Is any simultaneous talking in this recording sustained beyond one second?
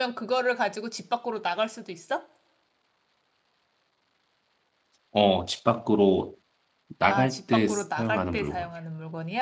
Yes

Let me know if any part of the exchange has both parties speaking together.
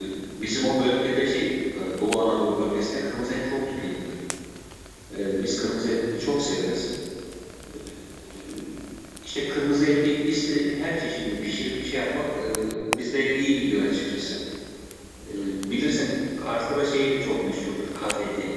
No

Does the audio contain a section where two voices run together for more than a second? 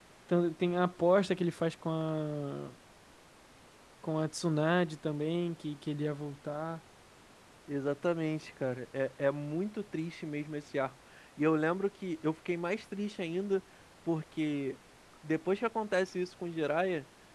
No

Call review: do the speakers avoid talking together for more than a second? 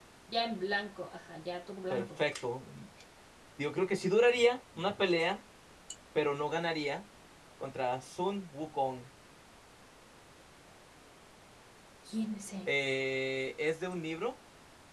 Yes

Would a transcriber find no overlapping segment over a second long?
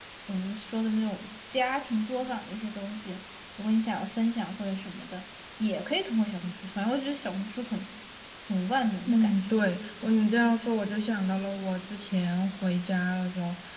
Yes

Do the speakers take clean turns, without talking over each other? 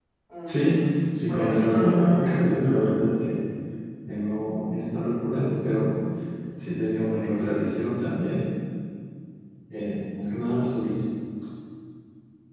No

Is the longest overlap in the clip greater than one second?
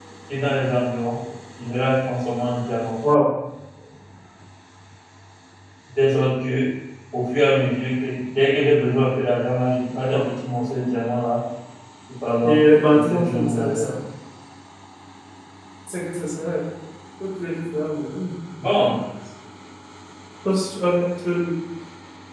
Yes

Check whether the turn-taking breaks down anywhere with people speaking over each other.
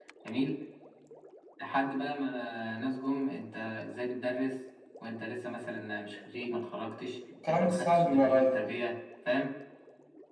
Yes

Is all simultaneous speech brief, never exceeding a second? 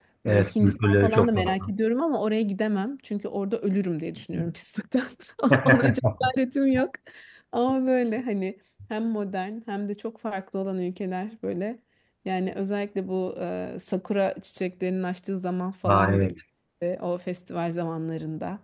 No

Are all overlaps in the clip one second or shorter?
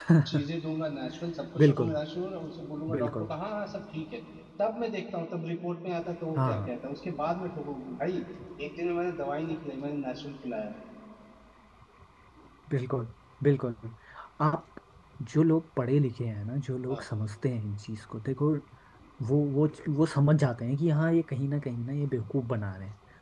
Yes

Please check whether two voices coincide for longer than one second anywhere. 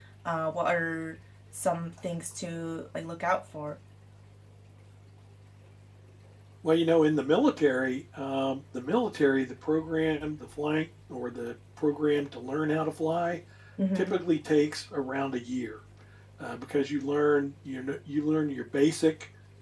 No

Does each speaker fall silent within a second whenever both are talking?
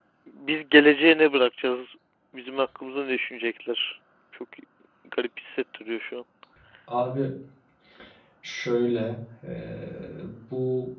Yes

